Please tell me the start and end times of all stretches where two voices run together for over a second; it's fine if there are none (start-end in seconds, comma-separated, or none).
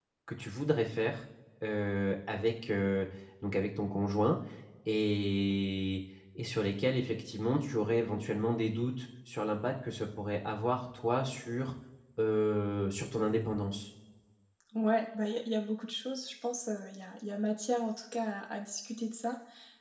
none